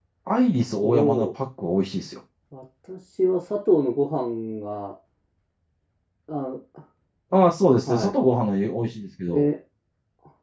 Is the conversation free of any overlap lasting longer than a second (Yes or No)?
Yes